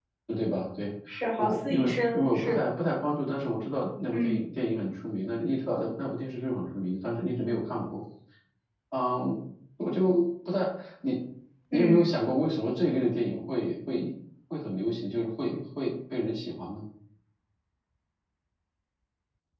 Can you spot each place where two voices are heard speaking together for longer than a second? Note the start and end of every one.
1.4-2.6

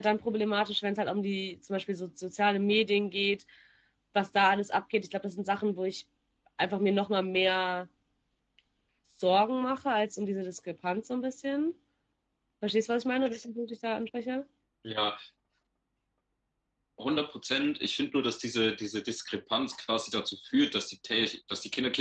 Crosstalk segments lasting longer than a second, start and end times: none

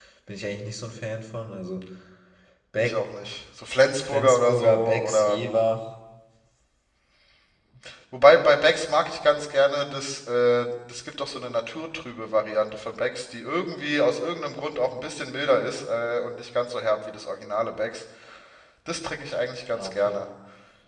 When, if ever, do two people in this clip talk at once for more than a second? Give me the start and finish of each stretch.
4.0-5.4

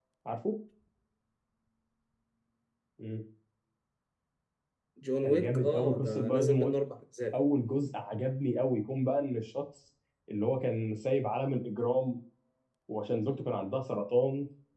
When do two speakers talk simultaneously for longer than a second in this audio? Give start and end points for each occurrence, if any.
5.2-6.7

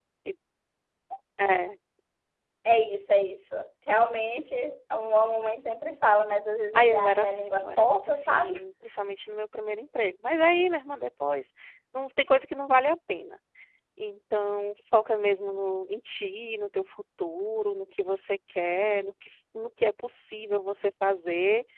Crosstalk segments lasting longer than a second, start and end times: 6.7-8.6

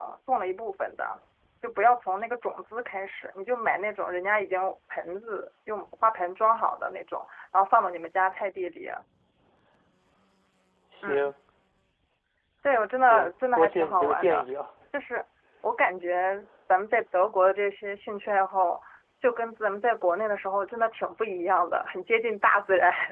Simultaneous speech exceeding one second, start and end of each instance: 13.1-14.4

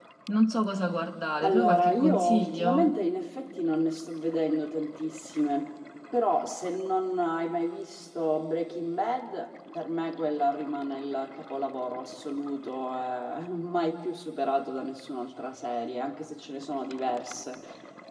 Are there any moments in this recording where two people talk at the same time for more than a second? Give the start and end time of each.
1.4-2.9

